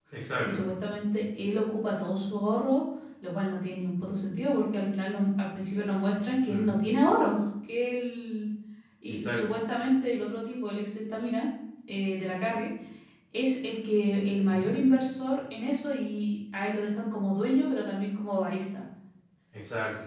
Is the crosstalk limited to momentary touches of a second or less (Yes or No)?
Yes